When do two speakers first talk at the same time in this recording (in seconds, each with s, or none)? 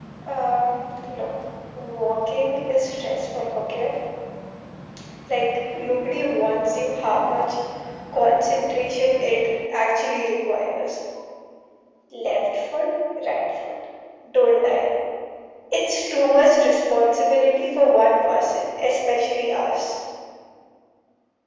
none